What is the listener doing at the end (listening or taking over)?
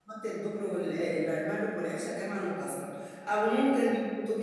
listening